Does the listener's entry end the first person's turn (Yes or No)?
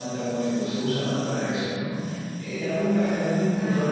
No